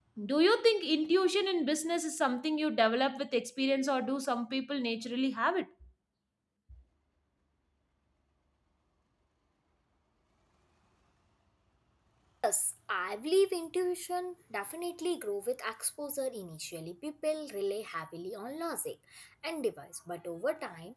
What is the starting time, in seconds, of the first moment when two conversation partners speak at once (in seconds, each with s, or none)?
none